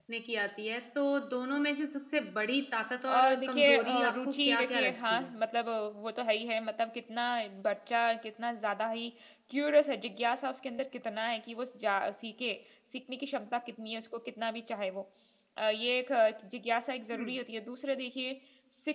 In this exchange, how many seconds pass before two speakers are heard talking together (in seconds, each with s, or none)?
3.1 s